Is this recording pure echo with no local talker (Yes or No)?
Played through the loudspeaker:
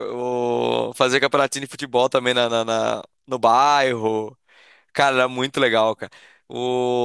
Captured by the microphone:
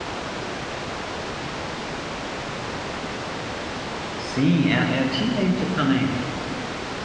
No